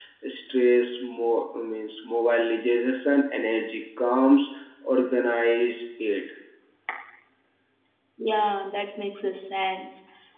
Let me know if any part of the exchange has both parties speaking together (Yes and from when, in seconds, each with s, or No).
No